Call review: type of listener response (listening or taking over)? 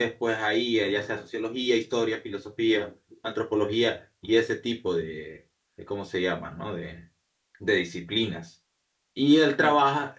listening